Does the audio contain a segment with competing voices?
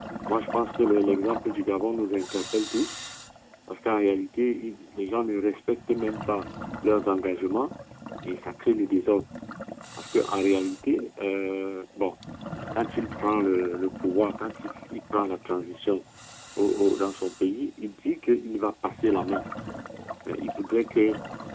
No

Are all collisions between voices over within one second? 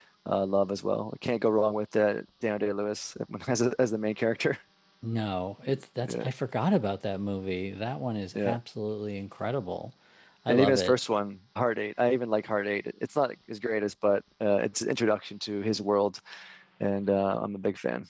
Yes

